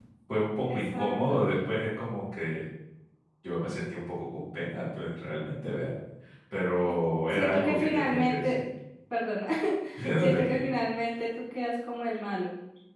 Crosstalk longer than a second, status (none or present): present